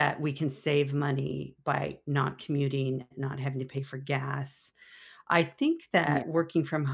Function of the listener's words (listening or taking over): listening